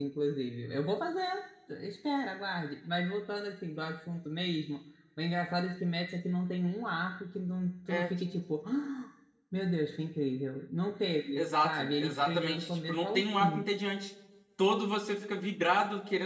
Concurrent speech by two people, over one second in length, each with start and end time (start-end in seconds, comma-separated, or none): 11.3-13.6